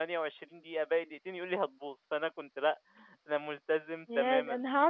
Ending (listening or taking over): taking over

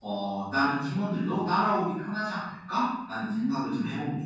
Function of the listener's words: taking over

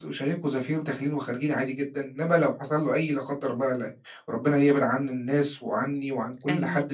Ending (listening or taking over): listening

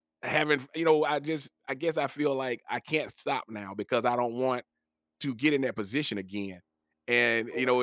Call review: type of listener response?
listening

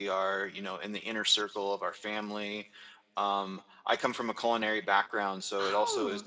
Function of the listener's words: listening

